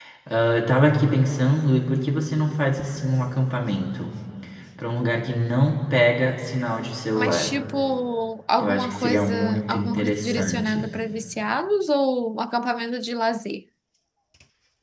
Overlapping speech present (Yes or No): Yes